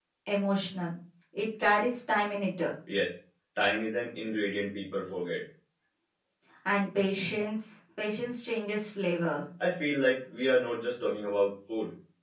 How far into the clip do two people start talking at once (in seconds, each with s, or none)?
none